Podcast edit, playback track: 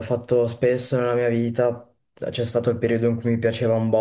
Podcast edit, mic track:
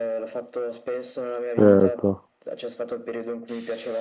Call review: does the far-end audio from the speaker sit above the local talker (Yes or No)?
No